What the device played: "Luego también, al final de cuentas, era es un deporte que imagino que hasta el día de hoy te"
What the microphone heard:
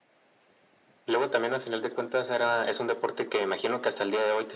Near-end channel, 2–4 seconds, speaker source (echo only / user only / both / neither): echo only